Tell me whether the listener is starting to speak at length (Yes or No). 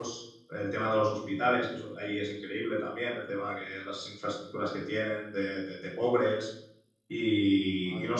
No